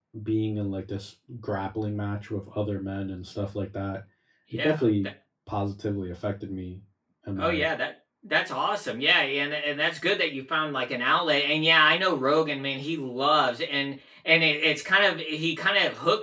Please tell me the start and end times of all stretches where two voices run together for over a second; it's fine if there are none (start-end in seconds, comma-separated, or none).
none